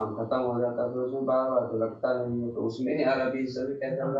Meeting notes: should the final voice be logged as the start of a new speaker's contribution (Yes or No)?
No